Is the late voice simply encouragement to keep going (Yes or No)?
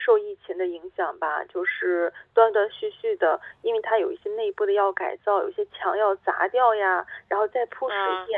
Yes